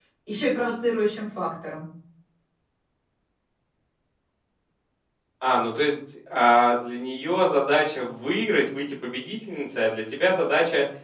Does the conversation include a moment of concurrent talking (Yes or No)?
No